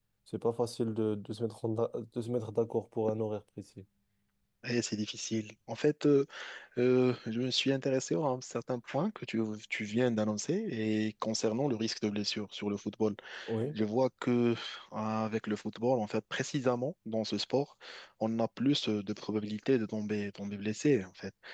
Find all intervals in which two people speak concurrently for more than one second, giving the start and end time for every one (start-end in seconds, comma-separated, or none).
none